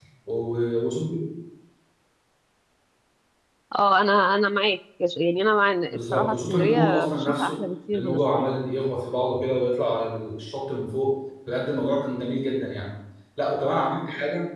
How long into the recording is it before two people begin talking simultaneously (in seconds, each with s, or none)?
5.9 s